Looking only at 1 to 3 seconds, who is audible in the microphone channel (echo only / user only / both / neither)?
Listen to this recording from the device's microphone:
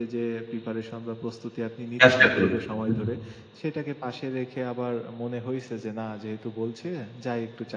both